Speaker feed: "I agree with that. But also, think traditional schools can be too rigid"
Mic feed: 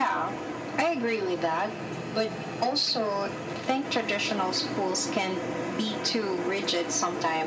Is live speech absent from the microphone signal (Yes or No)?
Yes